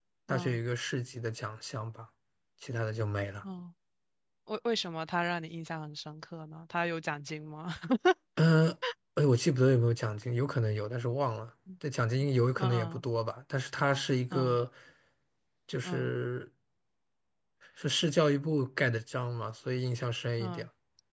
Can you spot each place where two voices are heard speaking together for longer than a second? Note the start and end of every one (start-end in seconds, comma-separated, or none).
none